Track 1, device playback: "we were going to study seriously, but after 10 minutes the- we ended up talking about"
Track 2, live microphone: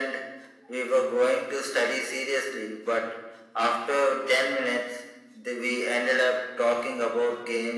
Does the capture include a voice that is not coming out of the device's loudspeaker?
No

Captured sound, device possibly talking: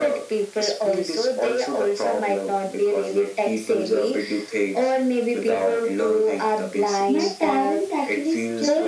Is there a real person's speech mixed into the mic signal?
Yes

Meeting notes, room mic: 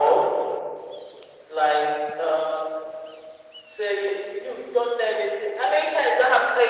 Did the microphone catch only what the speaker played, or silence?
Yes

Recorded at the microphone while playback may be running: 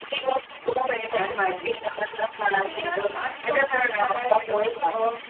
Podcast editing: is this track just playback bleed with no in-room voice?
No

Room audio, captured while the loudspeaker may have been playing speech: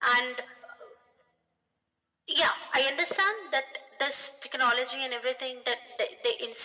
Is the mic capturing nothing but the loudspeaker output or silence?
Yes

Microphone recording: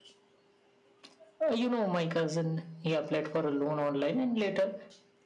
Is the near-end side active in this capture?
No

